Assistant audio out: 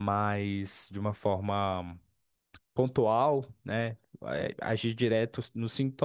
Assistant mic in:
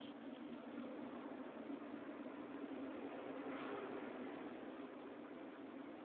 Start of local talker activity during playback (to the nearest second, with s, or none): none